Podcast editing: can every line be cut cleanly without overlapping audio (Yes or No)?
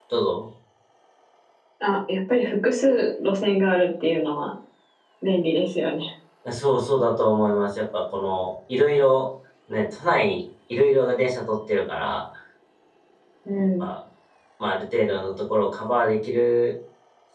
Yes